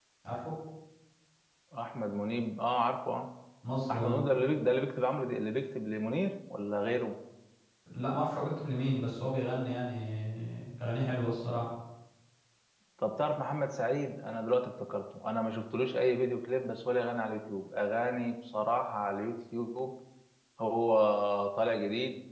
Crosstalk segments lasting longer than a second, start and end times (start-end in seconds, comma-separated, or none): none